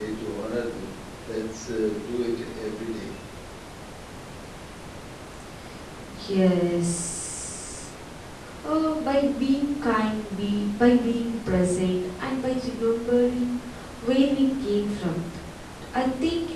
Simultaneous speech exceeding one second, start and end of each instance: none

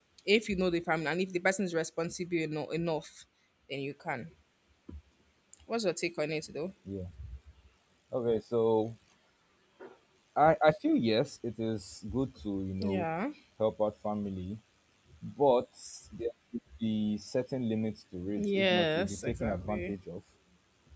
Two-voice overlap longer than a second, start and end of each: 18.4-19.9

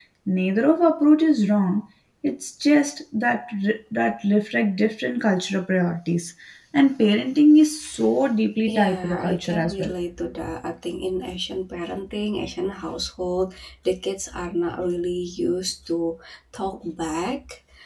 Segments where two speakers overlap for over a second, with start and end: 8.7-9.9

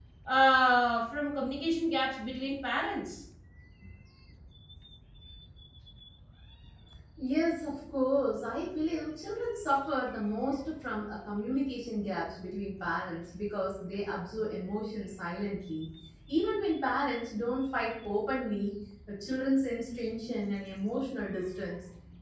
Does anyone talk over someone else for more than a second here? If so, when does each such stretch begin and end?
none

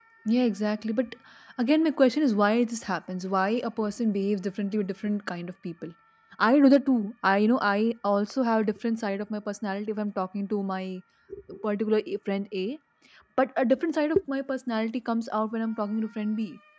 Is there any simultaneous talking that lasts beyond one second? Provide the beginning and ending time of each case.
none

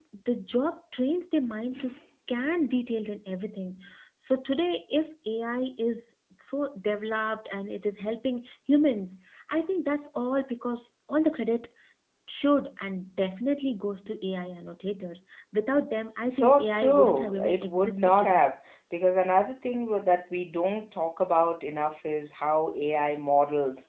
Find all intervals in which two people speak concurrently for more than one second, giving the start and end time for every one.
16.3-18.4

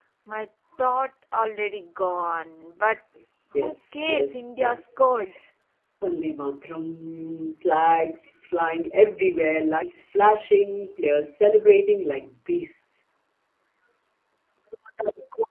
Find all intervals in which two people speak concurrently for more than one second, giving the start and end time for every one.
3.6-5.1

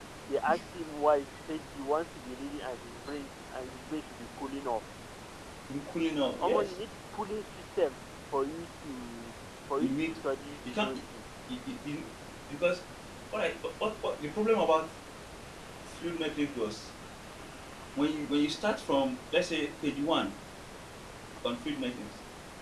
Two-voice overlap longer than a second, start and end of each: none

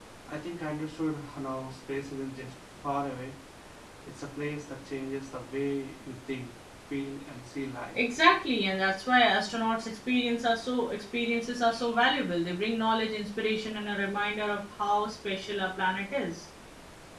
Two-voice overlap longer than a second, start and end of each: none

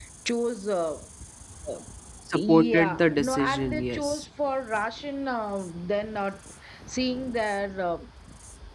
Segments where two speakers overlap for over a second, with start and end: 2.3-4.2

